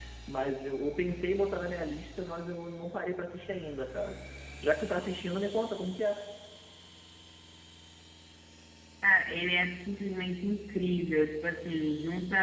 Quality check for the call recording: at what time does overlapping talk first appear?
none

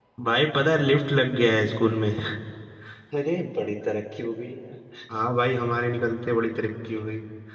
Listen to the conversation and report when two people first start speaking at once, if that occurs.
none

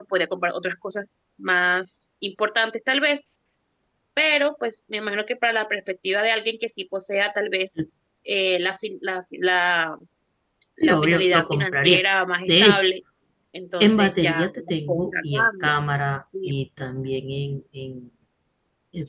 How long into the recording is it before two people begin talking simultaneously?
10.8 s

